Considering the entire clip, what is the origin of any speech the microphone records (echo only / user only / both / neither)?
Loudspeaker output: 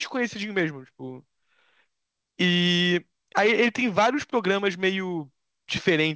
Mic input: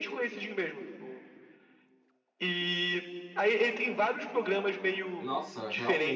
both